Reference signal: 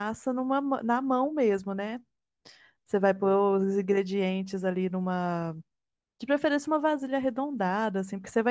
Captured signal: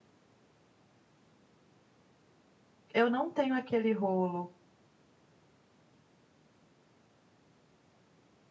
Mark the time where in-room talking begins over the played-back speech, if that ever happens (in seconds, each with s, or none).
2.9 s